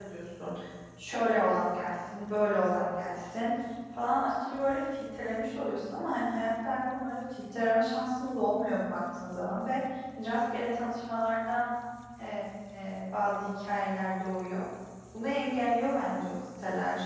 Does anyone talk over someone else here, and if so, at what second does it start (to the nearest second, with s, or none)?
none